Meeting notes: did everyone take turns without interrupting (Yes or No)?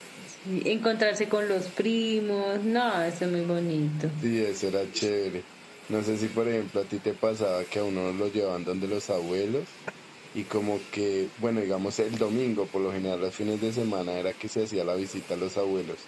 Yes